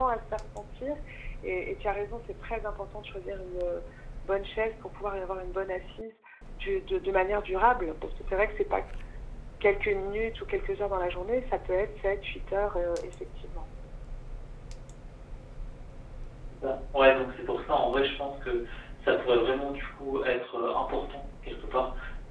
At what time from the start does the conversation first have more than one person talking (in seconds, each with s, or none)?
none